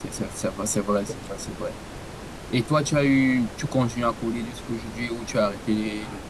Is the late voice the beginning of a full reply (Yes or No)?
Yes